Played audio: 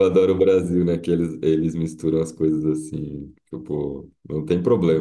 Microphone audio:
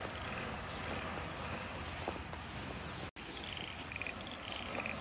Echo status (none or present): none